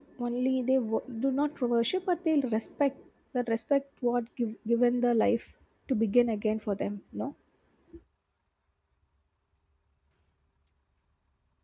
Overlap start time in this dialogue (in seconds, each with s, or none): none